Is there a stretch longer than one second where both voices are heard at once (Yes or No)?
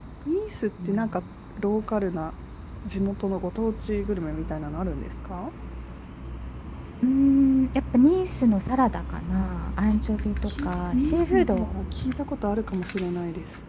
Yes